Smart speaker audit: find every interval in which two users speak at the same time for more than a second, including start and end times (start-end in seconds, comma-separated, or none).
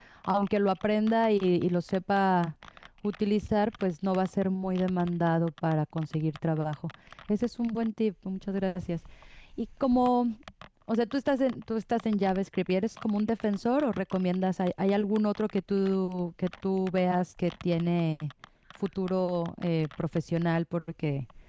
none